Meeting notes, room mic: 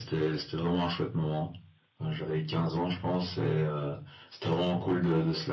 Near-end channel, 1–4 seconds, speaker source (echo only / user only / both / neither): echo only